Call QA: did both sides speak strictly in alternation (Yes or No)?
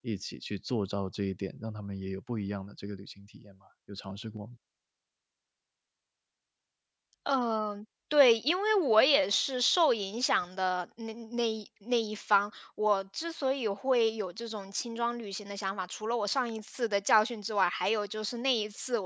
Yes